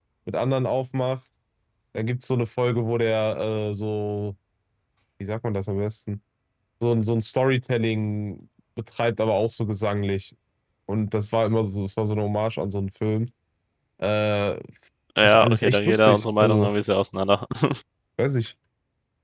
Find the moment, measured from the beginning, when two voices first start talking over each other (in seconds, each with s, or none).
15.2 s